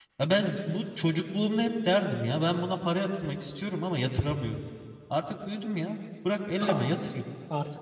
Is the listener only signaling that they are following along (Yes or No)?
No